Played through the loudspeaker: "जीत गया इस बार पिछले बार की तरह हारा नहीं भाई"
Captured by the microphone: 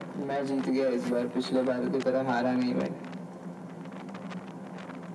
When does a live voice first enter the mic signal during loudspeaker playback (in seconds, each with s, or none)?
none